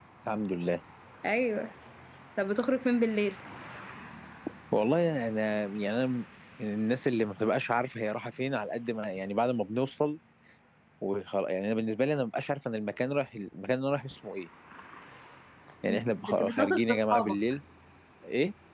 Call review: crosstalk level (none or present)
present